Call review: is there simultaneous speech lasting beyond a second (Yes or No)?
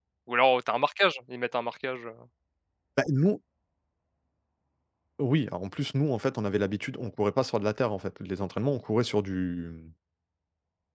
No